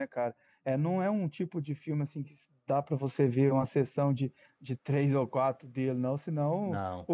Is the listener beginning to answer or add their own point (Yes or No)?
No